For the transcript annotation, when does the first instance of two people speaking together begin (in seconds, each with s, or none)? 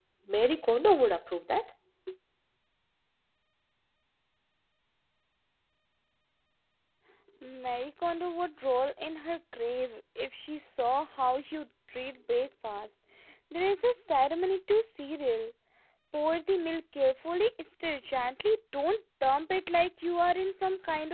none